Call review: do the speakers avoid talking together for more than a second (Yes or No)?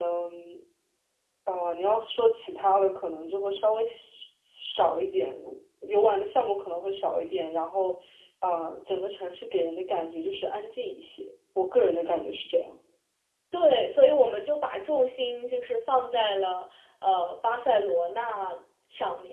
Yes